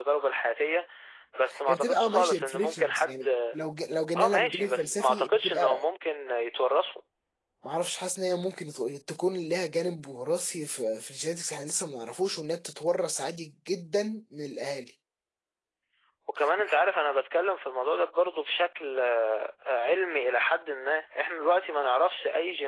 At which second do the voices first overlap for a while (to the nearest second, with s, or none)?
2 s